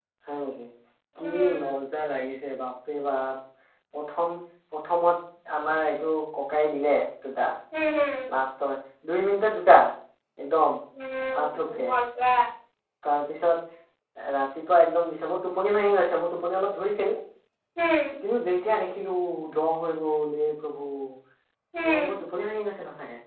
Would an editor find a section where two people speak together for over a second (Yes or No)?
No